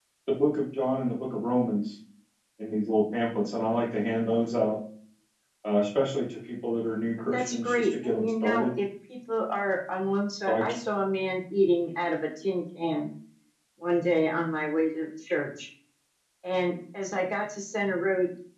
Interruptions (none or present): present